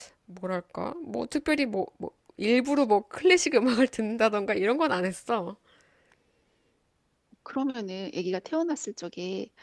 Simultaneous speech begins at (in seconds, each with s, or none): none